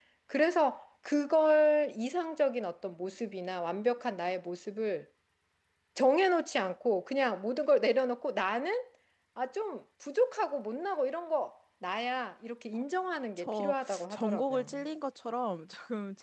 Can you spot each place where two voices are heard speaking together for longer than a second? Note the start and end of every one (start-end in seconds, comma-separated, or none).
13.4-14.7